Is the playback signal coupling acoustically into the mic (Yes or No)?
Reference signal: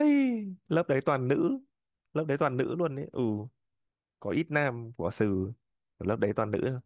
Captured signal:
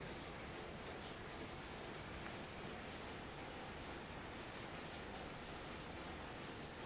No